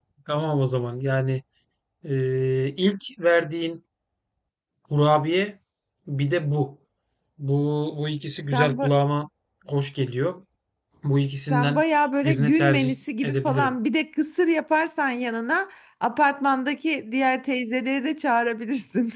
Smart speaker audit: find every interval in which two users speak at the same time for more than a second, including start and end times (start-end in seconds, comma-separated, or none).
12.2-13.8